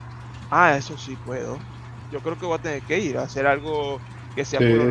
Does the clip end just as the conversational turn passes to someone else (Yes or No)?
Yes